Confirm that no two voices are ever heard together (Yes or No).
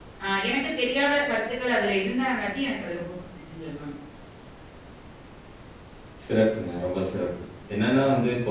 Yes